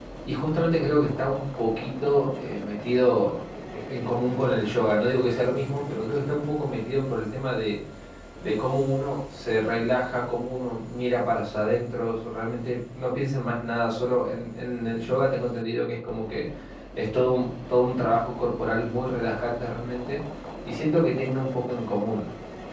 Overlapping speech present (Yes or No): No